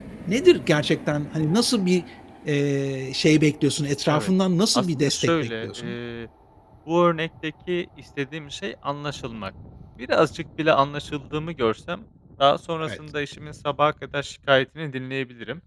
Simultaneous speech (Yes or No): Yes